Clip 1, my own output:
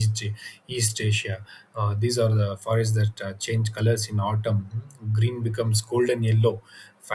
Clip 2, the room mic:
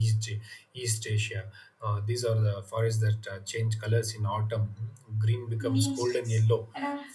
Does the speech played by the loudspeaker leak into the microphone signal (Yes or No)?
Yes